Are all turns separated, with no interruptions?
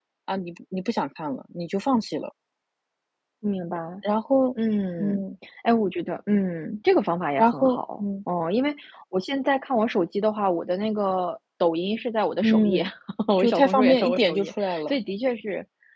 No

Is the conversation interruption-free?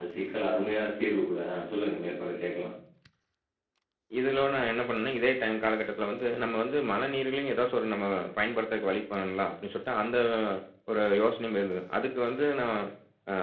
Yes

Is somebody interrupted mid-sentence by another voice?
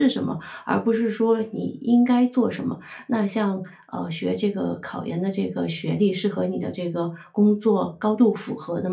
No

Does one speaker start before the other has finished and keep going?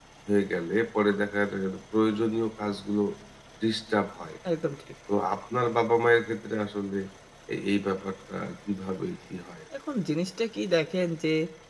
No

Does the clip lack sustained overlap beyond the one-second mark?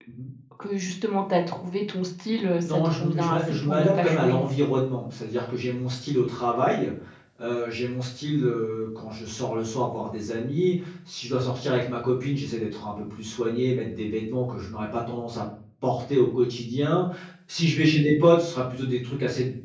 No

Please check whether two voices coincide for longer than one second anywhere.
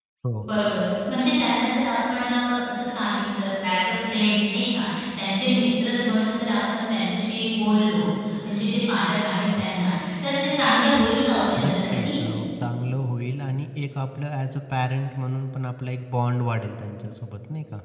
No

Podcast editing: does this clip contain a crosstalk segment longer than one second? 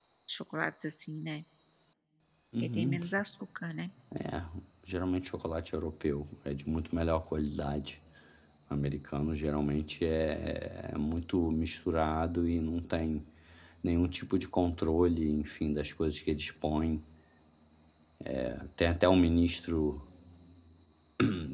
No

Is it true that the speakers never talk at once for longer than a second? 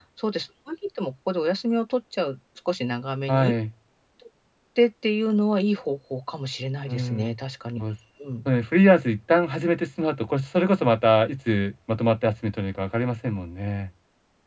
Yes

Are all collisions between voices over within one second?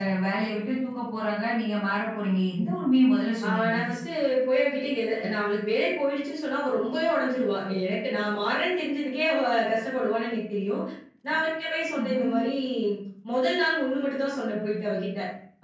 Yes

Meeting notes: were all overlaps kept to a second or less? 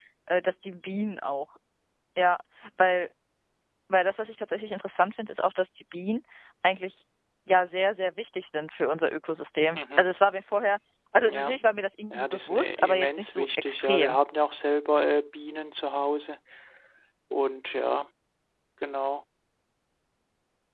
No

